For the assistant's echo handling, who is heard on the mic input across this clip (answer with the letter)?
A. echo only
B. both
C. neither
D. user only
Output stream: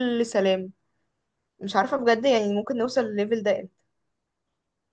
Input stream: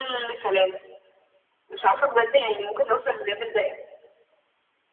A